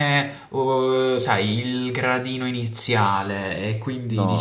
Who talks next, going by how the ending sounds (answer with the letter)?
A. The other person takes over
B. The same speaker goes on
A